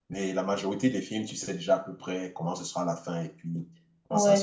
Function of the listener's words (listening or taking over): taking over